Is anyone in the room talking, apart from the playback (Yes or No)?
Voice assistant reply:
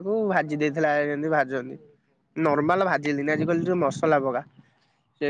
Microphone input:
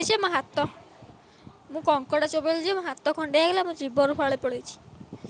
Yes